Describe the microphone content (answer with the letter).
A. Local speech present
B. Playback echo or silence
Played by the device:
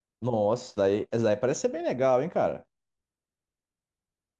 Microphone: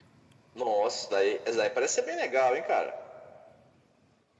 B